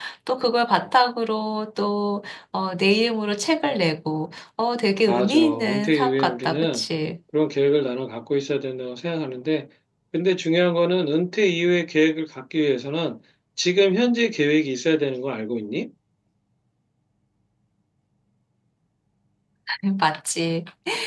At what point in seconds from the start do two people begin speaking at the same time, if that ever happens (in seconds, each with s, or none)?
5.1 s